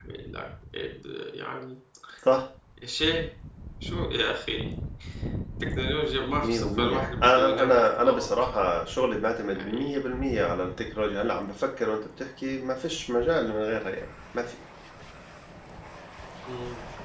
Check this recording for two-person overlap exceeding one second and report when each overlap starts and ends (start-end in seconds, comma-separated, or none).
6.4-8.3